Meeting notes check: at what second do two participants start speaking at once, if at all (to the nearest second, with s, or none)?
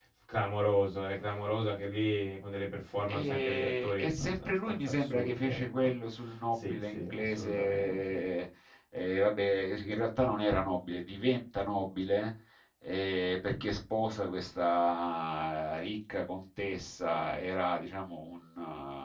3 s